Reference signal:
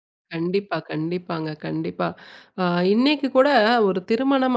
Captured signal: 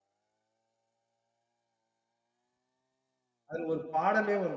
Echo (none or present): none